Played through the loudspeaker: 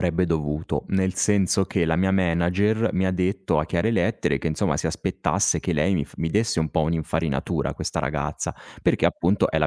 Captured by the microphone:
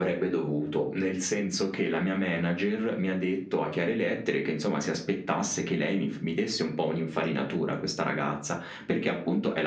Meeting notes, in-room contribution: none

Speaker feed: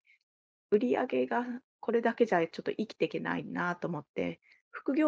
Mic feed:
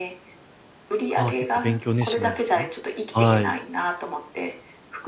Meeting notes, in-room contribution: present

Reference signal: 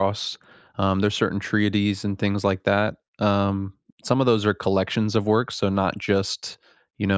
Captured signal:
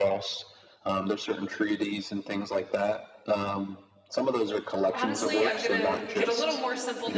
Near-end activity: present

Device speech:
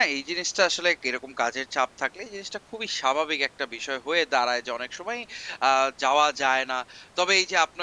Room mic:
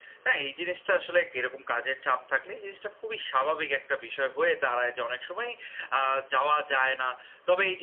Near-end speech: none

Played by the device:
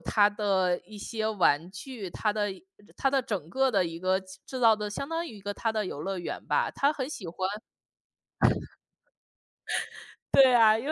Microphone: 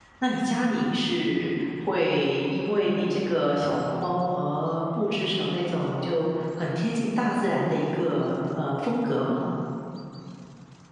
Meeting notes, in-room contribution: present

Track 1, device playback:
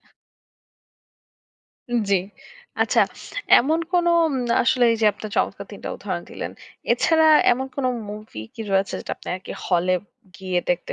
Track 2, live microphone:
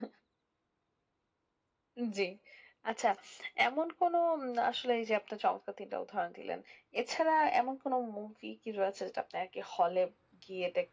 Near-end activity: none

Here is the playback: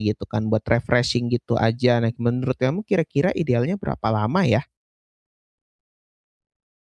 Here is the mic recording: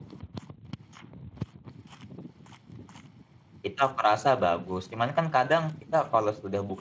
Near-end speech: present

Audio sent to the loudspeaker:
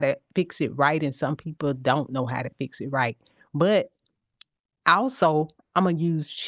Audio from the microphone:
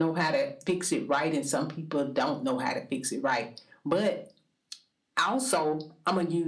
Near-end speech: none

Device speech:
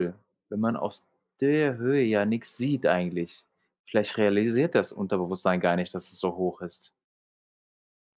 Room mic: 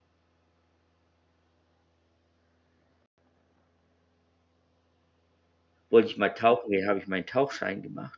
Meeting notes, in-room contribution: present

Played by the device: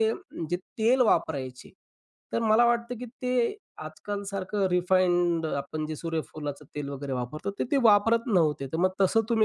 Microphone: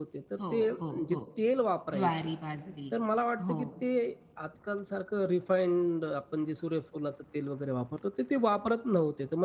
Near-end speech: present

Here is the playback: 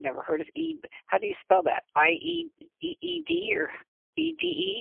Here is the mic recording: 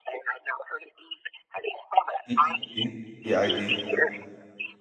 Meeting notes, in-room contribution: present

